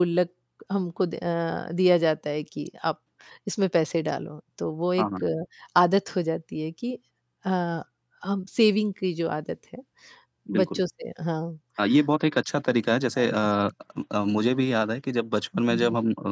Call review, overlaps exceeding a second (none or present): none